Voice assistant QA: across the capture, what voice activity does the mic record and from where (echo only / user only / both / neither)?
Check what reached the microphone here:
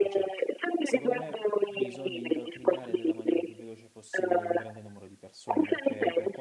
both